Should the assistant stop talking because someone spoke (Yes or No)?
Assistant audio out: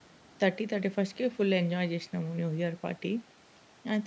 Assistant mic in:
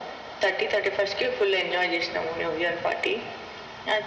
No